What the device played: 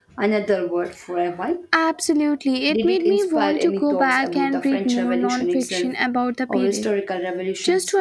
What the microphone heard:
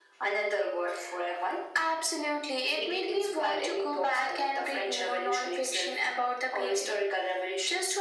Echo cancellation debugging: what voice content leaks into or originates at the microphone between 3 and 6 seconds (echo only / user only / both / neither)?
echo only